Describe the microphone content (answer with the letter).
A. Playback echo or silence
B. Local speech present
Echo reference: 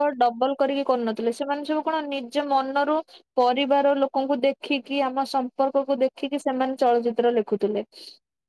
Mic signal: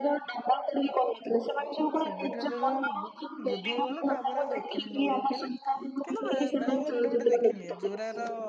B